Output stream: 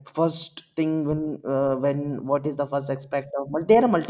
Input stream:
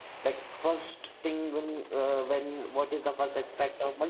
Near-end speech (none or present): none